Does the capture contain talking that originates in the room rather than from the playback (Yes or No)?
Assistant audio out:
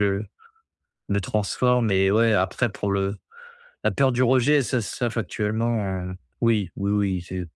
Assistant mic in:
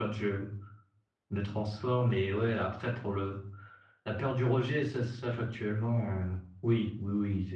No